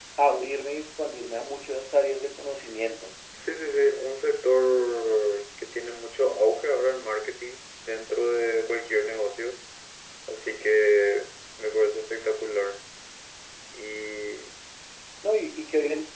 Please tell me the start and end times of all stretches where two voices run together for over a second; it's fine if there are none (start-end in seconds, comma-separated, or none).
none